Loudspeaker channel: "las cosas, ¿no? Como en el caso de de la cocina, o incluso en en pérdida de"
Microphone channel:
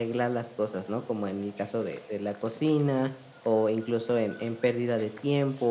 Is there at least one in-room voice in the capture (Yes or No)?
No